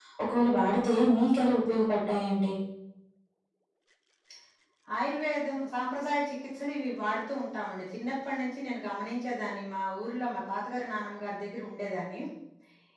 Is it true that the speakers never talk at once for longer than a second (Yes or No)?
Yes